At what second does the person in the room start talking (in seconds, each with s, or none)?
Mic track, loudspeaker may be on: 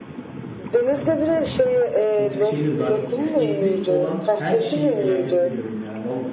2.1 s